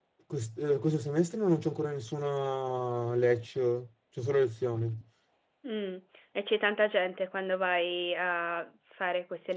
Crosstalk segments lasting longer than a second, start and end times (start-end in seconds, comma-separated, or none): none